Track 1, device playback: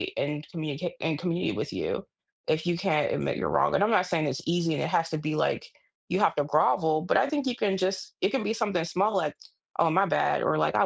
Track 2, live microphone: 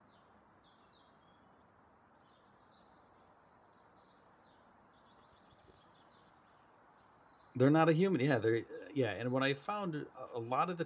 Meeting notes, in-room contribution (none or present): present